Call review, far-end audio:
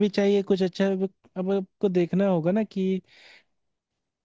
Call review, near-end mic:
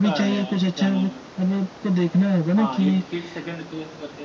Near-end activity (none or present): present